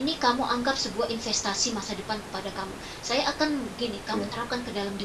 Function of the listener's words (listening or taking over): listening